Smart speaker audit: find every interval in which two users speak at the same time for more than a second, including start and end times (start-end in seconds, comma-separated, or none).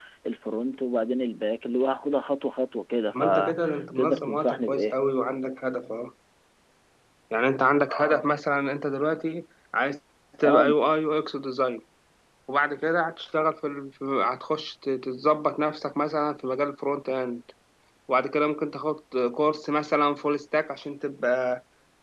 3.1-5.0